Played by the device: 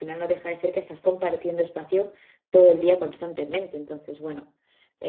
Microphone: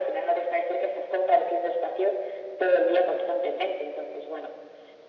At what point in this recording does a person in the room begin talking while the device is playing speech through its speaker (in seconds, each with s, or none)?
none